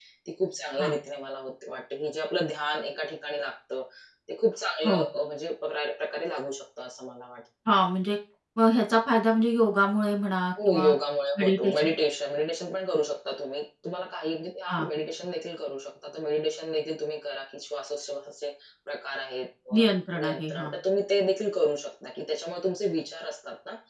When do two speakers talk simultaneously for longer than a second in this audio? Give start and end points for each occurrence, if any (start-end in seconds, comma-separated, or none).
none